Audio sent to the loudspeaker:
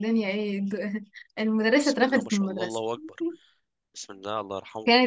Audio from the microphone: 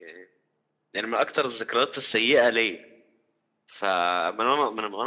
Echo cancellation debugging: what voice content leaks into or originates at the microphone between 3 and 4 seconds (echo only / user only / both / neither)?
user only